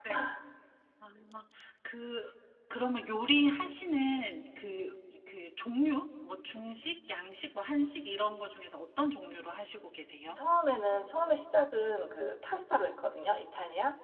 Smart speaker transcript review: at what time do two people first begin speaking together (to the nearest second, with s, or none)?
none